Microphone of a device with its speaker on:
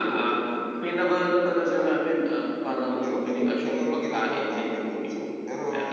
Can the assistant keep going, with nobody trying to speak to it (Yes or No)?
Yes